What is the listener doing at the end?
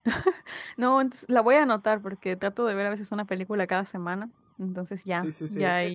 taking over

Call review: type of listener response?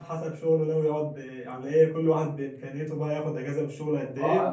taking over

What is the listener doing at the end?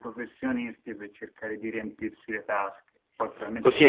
taking over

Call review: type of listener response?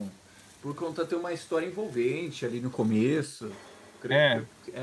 listening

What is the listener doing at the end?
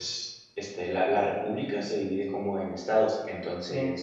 listening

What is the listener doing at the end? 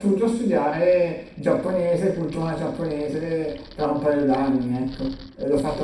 taking over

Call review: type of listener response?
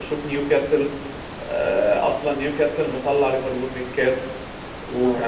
listening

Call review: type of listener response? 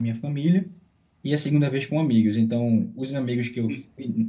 listening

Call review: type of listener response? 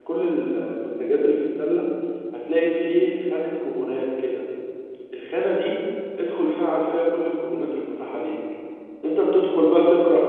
listening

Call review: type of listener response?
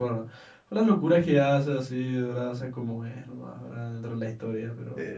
taking over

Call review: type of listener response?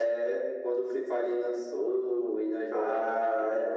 taking over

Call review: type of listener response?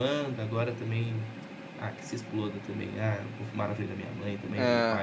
listening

